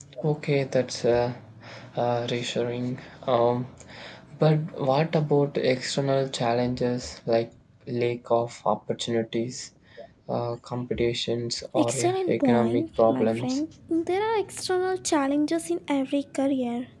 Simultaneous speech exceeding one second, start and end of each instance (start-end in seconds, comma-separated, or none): 11.8-13.6